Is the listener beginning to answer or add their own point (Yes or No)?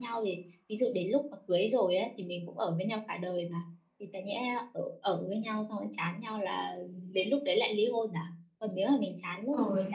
No